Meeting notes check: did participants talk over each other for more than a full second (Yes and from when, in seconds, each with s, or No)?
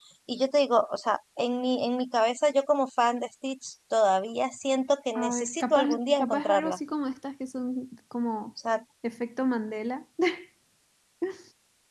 Yes, from 5.2 s